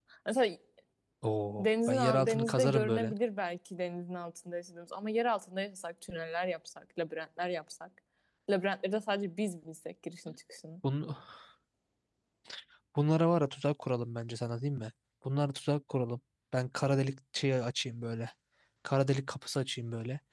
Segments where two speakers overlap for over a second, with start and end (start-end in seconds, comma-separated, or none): 1.6-3.1